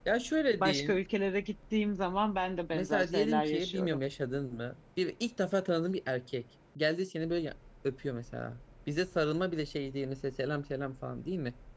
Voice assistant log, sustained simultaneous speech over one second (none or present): present